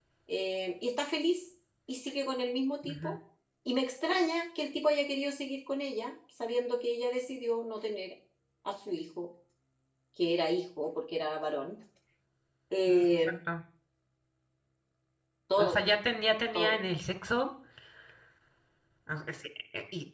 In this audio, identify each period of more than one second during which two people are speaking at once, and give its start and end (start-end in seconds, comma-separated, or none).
none